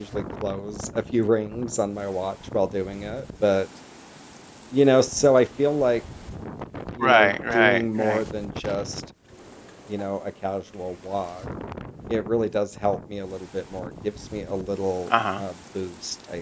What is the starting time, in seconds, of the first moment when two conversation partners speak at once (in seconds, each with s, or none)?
7.0 s